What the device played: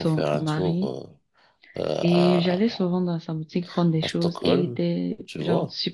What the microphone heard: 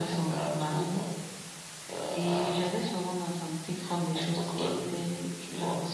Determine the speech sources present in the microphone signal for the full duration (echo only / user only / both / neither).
echo only